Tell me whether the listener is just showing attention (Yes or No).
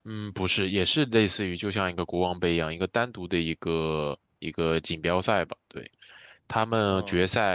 Yes